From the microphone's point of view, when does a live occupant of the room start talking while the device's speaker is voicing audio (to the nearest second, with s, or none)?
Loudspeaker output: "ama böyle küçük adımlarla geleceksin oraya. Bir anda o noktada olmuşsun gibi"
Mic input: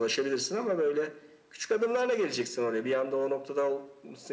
none